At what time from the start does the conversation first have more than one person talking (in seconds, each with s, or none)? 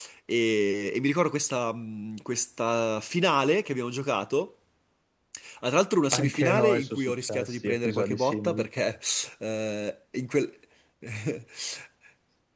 6.1 s